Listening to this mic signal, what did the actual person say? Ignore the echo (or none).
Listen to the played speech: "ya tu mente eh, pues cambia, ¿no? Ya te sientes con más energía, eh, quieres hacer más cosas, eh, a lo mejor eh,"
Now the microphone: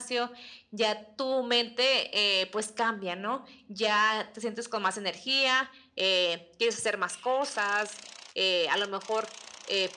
none